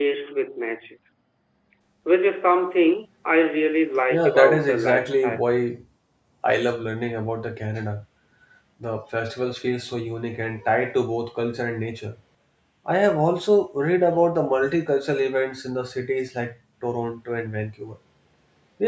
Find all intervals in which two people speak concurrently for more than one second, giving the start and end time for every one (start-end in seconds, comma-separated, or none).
4.1-5.4